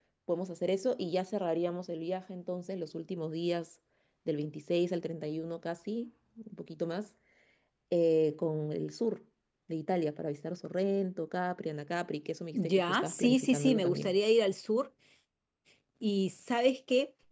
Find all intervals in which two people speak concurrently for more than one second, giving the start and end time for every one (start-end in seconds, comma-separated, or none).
12.5-14.2